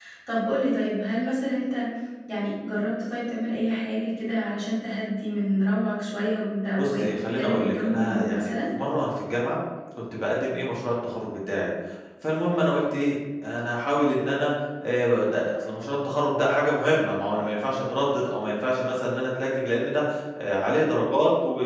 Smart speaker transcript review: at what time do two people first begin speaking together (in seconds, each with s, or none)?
6.8 s